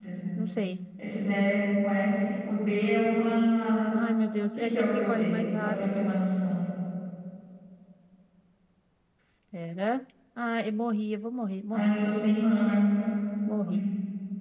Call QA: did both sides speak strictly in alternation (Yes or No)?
No